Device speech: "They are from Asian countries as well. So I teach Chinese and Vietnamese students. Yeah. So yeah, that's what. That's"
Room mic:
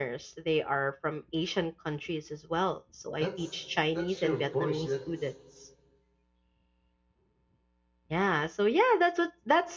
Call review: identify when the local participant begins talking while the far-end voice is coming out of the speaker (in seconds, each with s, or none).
3.2 s